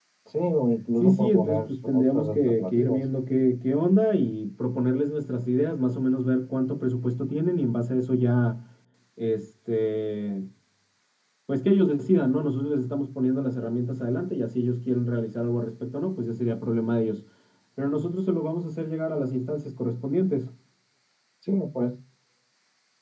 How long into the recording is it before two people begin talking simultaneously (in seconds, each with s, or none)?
1.0 s